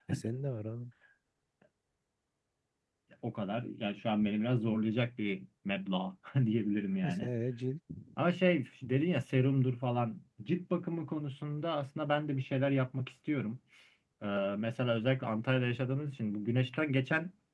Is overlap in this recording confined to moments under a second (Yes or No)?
Yes